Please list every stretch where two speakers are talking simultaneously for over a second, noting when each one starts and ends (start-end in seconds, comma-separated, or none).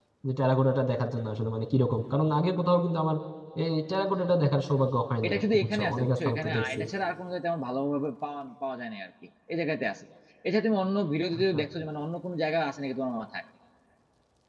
5.2-6.8